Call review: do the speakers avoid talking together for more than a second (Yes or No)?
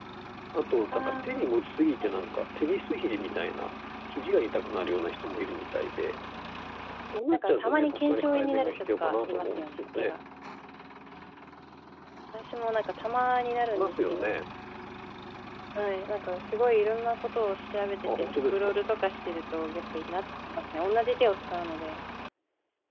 No